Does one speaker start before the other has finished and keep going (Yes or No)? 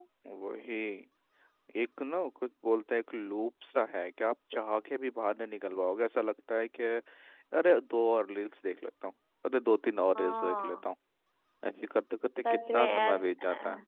Yes